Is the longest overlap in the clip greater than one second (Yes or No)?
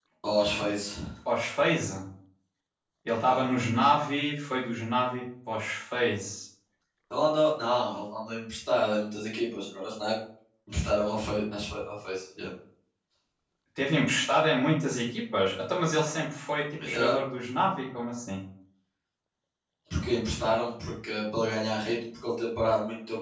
No